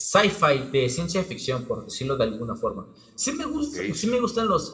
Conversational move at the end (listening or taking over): listening